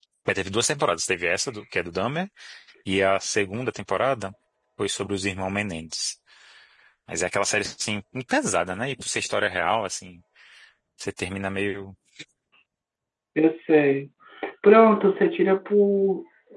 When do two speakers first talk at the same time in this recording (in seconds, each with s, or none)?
none